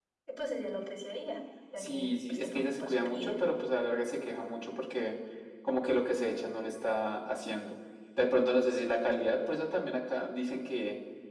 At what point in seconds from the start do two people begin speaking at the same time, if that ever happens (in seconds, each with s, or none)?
1.8 s